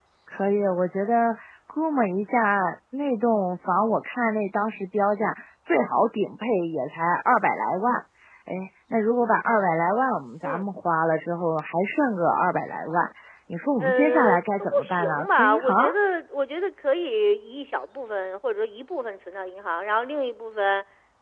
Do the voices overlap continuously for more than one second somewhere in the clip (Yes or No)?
Yes